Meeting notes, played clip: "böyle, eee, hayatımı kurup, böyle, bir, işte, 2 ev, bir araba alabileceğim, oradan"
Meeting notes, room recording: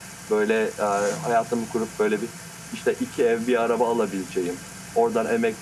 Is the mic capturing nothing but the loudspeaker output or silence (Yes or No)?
Yes